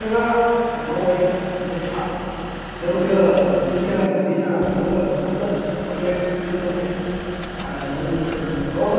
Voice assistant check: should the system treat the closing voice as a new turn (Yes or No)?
No